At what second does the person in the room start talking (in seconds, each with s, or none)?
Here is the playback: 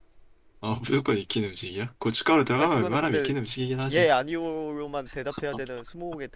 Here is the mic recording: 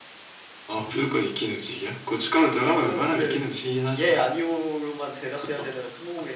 none